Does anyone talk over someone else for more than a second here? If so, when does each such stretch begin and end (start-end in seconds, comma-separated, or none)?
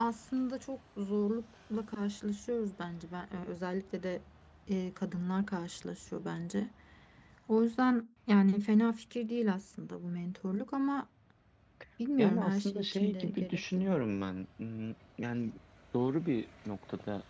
12.2-14.0